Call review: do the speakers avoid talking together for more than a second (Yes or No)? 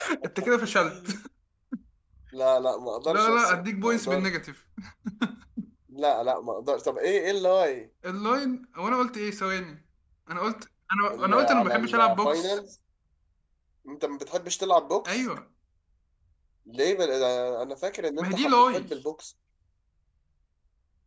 No